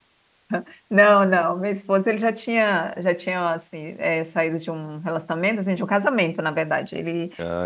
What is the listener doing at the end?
listening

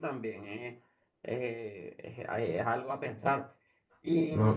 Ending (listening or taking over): listening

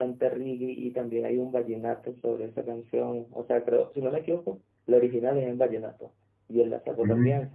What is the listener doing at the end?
listening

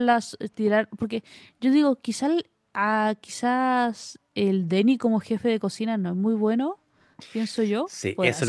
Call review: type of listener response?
taking over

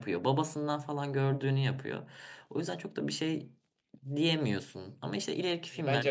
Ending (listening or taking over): taking over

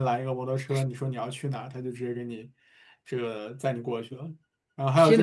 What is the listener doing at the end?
listening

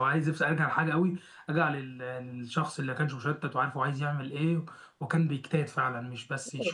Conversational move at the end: taking over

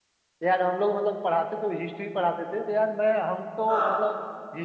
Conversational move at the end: listening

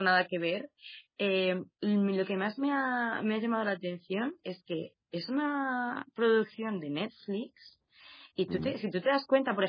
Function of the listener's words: listening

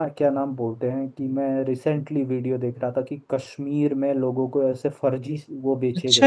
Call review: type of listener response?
taking over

